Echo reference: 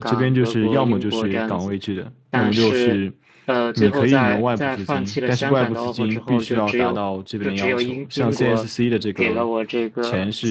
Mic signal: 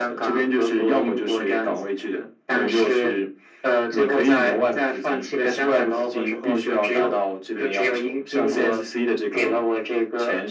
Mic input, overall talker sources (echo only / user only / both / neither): echo only